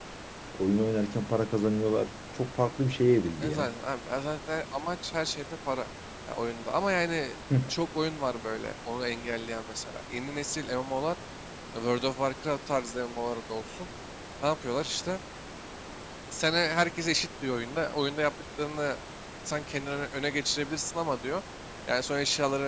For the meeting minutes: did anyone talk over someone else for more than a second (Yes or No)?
No